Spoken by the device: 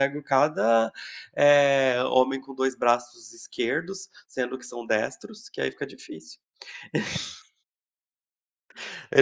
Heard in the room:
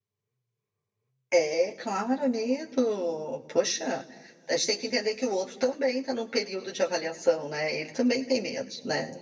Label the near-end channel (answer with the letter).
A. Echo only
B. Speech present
B